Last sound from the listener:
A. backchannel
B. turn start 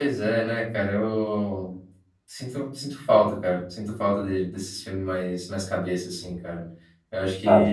A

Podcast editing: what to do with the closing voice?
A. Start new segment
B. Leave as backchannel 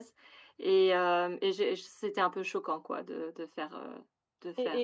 A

